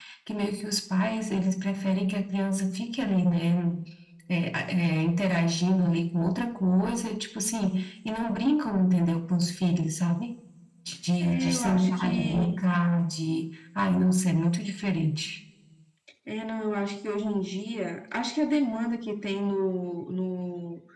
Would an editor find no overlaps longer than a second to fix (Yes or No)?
No